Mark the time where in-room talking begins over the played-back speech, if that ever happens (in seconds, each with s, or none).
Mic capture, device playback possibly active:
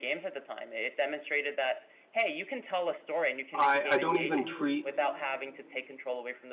3.5 s